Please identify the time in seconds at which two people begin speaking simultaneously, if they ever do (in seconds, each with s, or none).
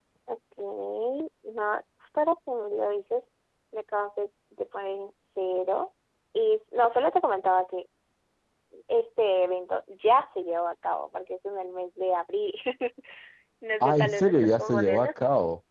13.8 s